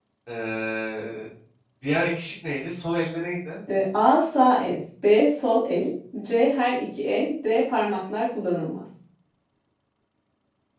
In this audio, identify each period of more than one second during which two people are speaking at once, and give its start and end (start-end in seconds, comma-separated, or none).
none